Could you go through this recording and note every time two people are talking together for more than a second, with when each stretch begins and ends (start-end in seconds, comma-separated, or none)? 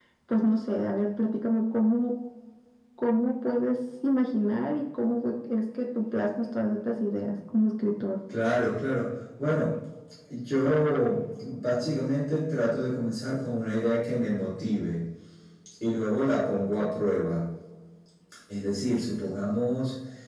none